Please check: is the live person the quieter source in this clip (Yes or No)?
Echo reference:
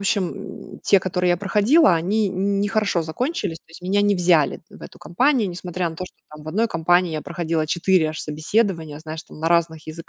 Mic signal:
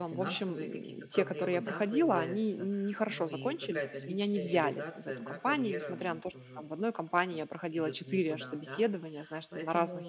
Yes